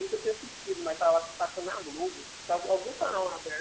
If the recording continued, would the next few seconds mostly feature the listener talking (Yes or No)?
No